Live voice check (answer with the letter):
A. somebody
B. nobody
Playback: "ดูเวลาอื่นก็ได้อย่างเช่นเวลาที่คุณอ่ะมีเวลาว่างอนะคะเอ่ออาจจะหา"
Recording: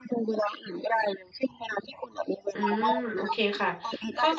A